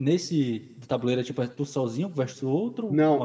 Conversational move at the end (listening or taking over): taking over